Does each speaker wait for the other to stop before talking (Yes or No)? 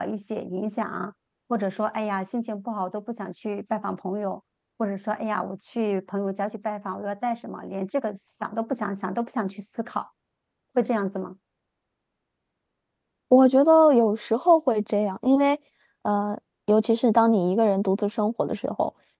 Yes